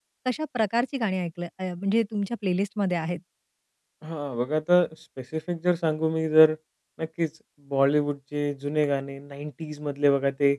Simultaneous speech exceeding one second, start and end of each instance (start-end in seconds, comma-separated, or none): none